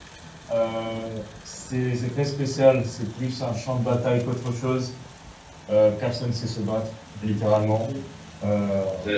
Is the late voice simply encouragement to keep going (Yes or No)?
No